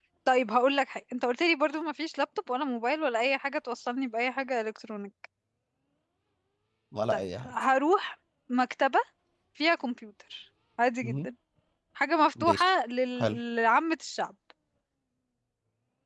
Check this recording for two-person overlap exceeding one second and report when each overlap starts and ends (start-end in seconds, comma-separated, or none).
none